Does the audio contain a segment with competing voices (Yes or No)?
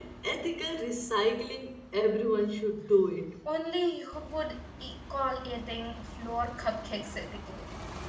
No